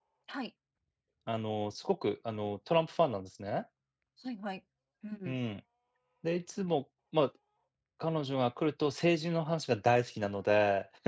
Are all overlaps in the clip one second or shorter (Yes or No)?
Yes